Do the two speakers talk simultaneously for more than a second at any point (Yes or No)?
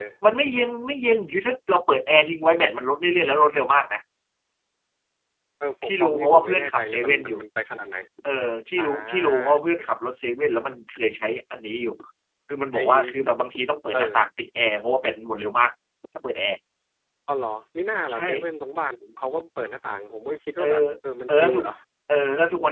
Yes